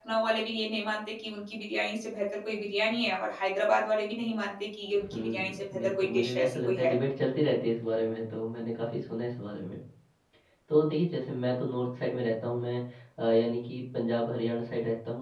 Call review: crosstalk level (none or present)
present